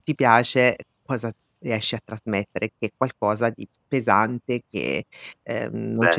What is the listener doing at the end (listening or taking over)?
listening